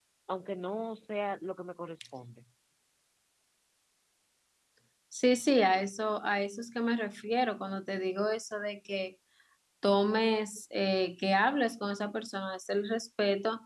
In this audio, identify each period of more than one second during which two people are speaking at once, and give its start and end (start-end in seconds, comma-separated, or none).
none